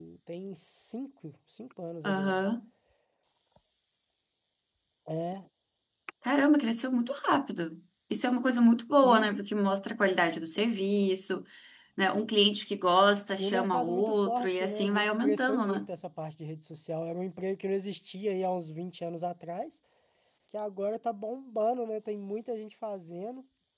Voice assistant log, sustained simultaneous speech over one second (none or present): present